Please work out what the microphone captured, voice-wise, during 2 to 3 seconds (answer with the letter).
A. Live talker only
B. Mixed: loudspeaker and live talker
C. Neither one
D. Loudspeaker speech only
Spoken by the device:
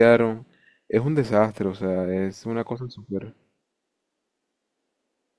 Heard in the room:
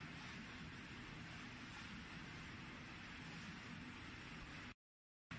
C